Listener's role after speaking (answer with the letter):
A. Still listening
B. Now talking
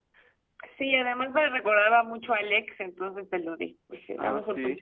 B